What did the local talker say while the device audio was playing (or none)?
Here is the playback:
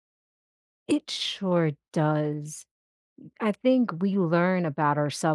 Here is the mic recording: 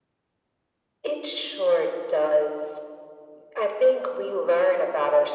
none